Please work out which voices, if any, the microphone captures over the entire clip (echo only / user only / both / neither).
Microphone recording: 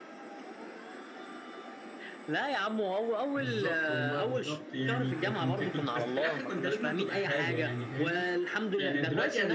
both